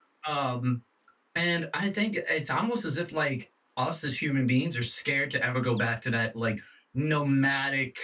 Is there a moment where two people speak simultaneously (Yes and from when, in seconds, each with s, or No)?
No